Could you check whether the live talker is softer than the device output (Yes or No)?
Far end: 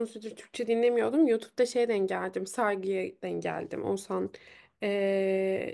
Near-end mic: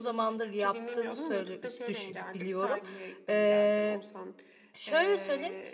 No